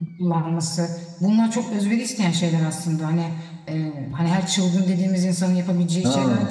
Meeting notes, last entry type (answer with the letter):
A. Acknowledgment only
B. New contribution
A